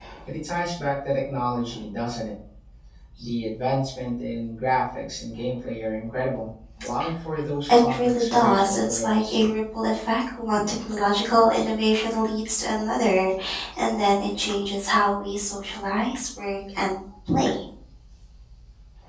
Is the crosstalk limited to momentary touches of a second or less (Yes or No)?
No